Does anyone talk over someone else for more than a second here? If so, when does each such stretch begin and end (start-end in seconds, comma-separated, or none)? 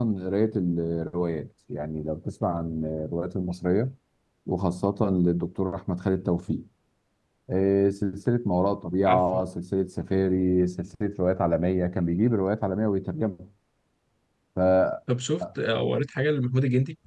none